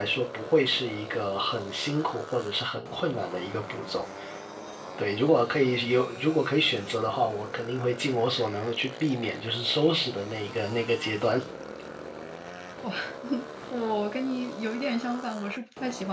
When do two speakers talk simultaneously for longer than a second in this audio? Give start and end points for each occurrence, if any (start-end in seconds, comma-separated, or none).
none